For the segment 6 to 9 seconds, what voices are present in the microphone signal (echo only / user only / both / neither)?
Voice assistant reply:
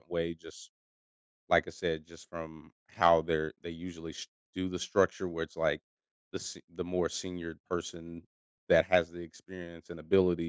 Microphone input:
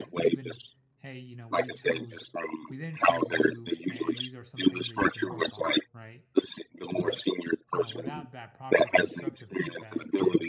both